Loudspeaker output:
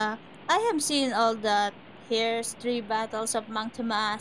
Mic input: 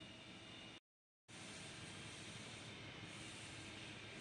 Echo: none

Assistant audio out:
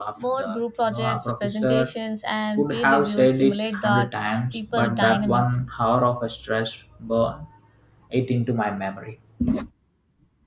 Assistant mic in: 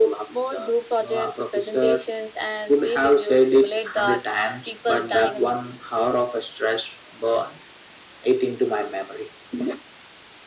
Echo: present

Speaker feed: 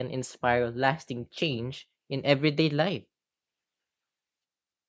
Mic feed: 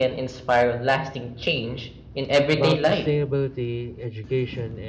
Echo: present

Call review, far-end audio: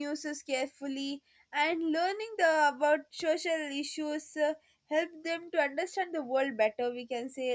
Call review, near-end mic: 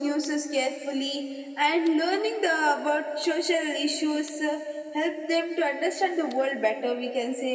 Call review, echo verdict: present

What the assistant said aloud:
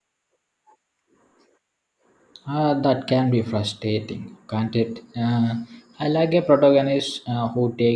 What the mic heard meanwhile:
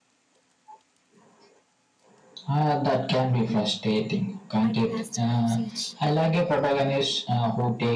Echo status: present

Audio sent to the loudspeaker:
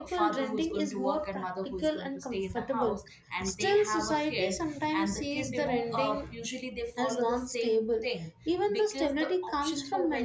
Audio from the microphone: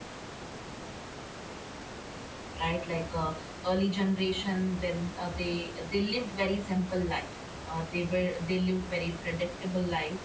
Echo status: none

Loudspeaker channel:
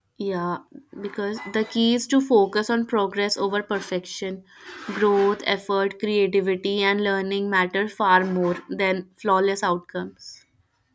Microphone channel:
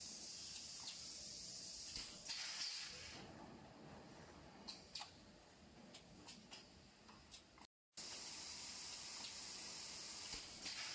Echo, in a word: none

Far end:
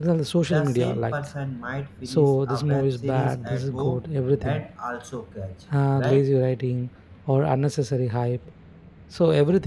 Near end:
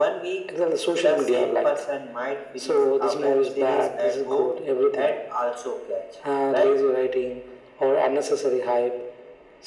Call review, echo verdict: present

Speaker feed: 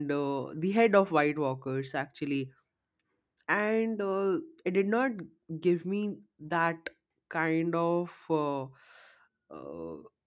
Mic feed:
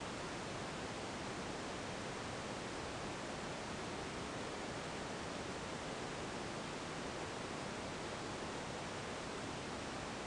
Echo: none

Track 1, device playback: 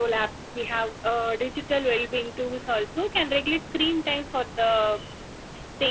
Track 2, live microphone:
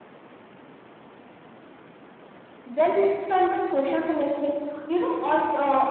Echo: none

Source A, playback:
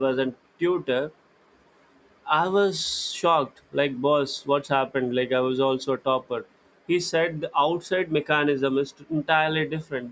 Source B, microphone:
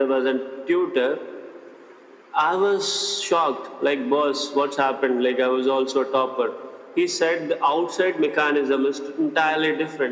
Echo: present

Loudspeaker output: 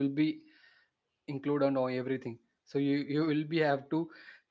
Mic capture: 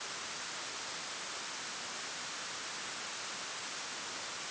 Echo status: none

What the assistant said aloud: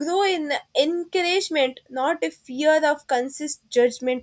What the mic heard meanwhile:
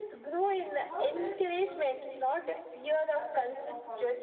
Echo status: present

